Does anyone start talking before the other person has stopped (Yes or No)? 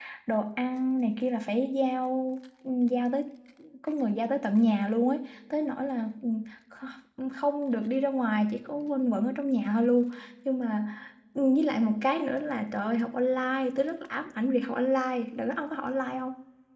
No